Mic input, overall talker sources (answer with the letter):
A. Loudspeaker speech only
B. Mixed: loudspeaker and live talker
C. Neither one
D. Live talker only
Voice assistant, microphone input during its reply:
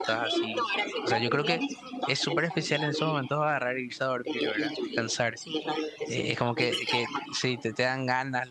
B